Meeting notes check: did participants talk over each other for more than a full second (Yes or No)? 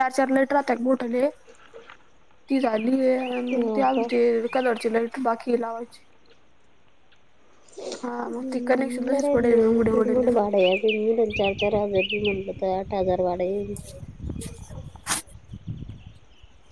Yes